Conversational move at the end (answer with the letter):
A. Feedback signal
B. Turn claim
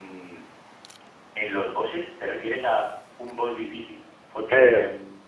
B